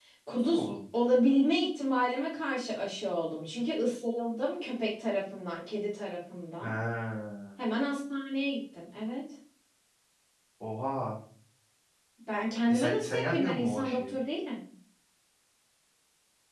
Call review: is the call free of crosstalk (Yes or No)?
No